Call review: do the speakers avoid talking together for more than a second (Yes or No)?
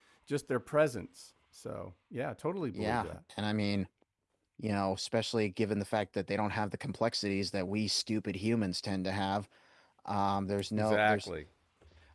Yes